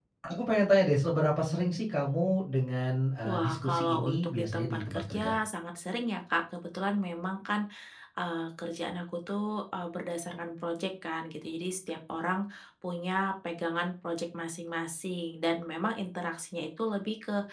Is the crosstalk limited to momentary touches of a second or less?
No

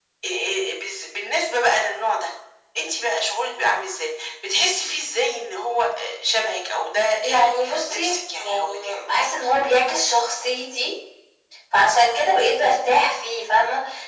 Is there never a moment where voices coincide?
No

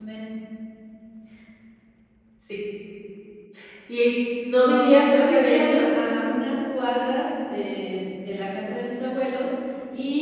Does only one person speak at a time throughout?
No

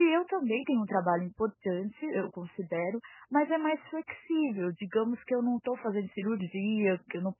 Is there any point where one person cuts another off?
No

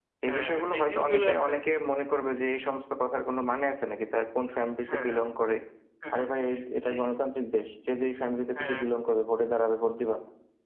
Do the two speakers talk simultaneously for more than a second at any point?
Yes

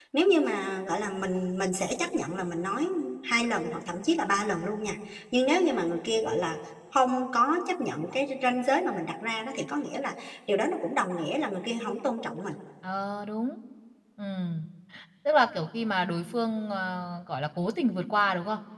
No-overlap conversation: Yes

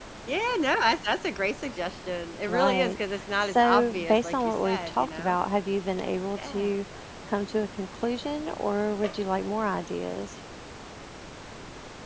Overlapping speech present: Yes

